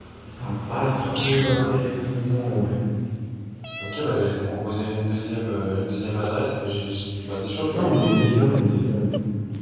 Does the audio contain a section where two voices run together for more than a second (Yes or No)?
No